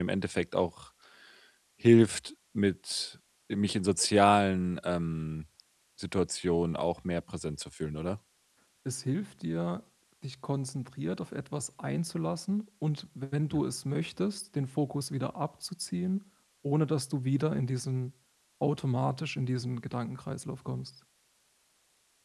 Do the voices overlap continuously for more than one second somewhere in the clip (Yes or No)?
No